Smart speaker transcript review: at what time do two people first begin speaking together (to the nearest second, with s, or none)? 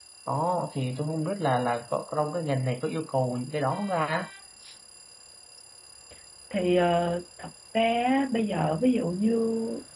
none